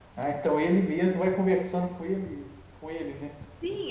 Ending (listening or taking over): taking over